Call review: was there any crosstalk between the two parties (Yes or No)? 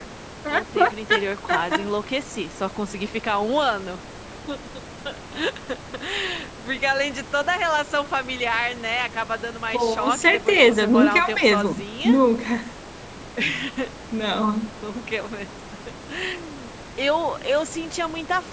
Yes